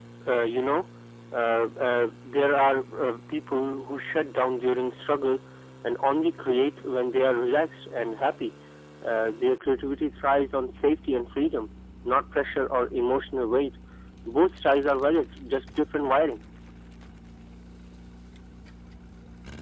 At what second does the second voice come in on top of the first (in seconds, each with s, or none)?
none